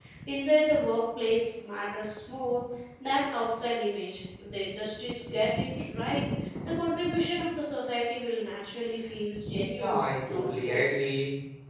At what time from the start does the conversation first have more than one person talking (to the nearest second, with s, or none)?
10 s